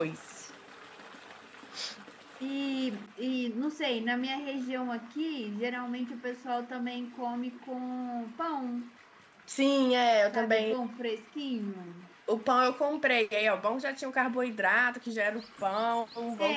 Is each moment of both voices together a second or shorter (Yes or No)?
Yes